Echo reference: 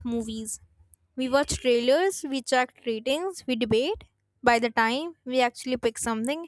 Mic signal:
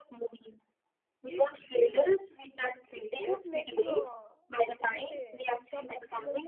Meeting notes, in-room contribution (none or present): present